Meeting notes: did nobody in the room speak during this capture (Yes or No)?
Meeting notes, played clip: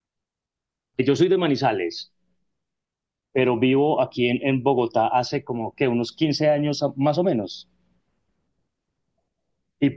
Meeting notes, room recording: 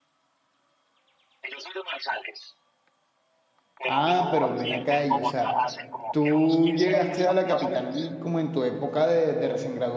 No